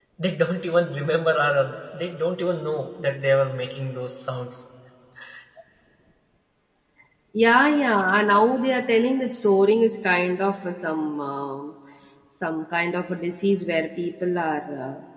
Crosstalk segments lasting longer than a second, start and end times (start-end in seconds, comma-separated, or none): none